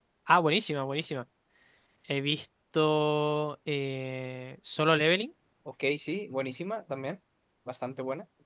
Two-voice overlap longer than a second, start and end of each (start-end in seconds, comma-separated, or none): none